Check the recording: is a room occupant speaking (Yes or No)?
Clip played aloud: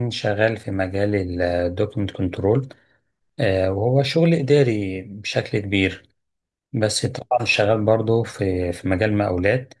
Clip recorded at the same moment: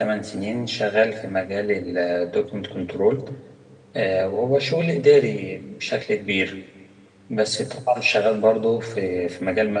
No